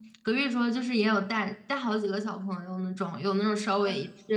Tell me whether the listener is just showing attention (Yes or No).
Yes